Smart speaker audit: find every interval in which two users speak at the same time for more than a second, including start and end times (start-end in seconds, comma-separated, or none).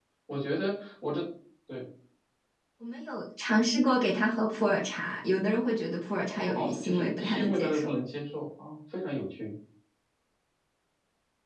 6.5-7.9